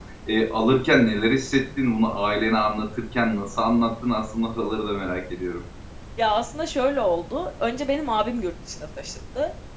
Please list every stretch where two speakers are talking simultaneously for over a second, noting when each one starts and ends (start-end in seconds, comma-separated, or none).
none